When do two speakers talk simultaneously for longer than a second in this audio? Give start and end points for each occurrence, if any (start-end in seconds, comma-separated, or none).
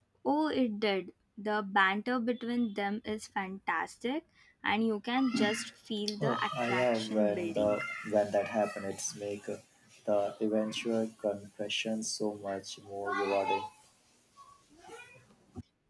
6.2-7.8